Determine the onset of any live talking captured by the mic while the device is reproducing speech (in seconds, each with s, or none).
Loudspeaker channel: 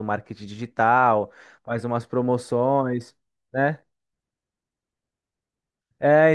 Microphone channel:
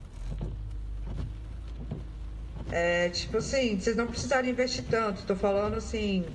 2.8 s